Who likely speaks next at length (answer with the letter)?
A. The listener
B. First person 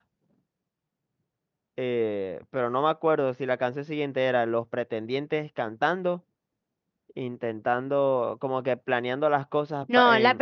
A